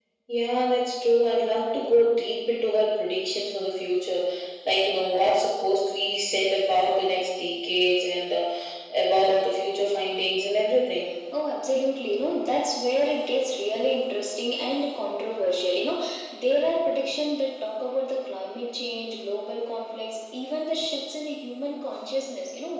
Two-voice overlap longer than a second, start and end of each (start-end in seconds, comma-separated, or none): none